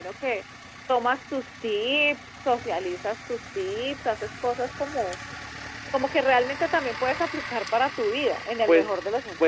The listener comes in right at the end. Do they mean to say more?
Yes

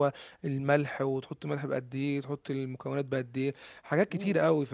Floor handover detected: Yes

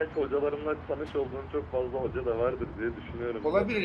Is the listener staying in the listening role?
No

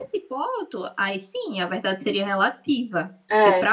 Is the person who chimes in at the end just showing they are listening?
Yes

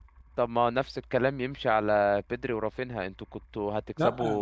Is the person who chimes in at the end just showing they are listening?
Yes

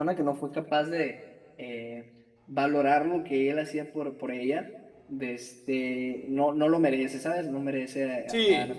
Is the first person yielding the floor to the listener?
Yes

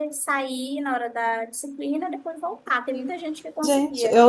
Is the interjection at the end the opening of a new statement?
Yes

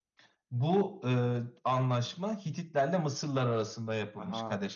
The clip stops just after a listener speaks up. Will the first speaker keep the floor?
Yes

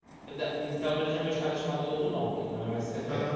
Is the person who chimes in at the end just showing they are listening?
No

